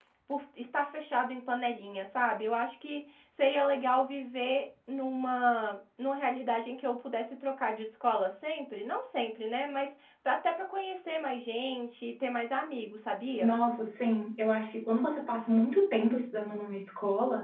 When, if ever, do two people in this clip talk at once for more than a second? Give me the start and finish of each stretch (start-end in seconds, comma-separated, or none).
none